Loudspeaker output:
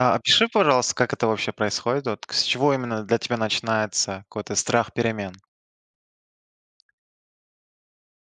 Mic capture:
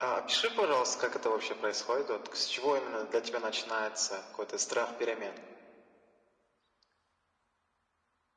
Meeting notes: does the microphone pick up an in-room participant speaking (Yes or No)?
No